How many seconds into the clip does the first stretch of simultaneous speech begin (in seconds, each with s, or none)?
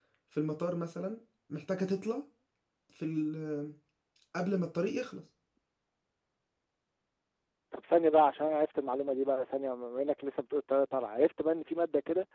none